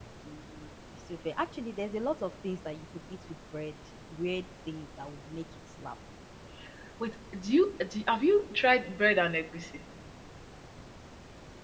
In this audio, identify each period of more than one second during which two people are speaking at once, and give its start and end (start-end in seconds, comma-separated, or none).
none